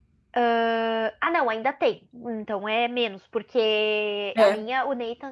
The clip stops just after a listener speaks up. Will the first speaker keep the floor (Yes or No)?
Yes